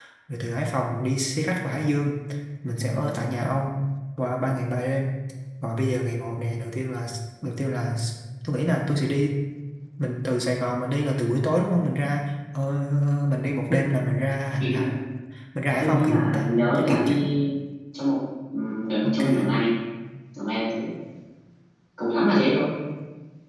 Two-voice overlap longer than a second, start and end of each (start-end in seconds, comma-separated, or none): 15.8-17.2